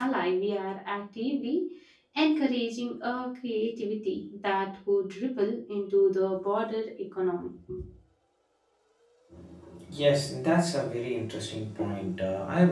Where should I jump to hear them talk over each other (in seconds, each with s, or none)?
none